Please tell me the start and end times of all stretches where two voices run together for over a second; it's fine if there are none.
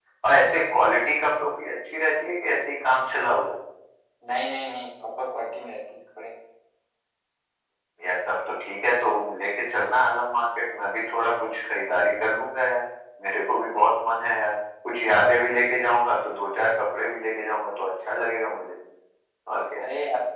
none

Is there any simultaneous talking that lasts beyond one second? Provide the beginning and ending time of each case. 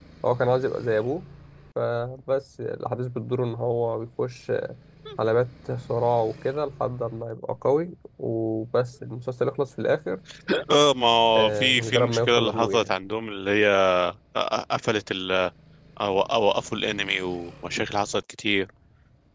11.3-12.9

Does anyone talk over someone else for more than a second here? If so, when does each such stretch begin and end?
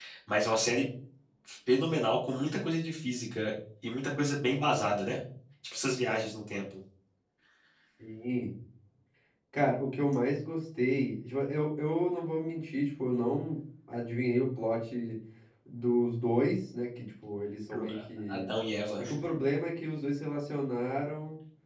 none

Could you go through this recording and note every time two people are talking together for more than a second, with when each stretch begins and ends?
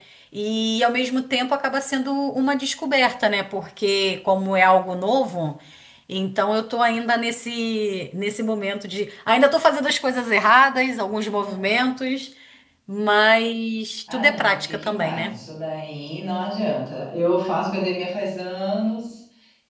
14.1-15.3

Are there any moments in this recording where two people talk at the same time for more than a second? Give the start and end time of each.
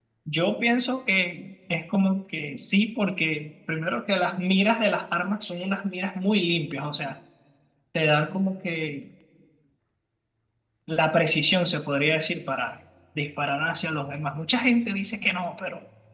none

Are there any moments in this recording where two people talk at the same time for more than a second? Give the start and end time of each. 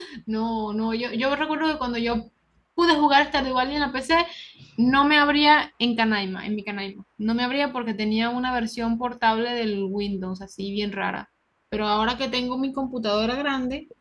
none

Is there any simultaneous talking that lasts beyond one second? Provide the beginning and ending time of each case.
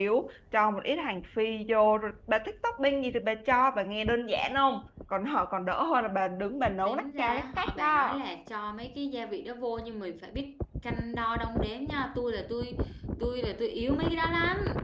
6.8-8.2

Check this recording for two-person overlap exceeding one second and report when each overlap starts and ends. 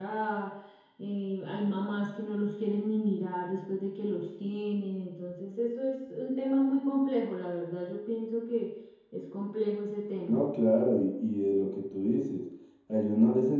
none

